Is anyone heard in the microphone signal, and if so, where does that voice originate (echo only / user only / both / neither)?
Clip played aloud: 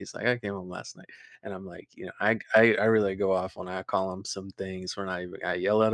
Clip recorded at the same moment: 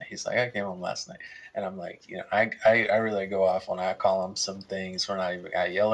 echo only